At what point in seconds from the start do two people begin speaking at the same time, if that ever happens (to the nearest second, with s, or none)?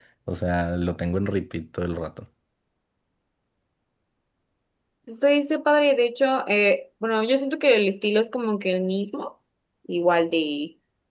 none